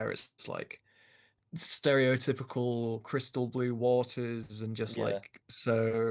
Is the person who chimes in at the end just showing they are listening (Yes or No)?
Yes